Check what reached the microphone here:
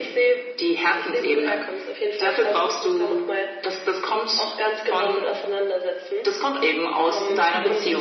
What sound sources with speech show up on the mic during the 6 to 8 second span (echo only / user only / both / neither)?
both